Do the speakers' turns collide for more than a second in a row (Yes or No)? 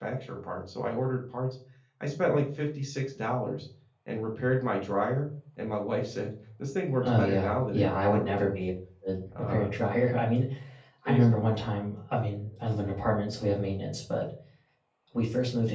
Yes